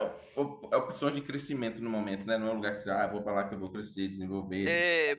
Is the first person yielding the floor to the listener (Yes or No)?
Yes